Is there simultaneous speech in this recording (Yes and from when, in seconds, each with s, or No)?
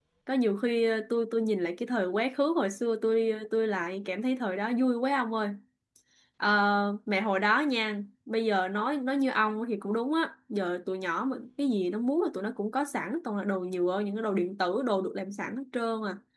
No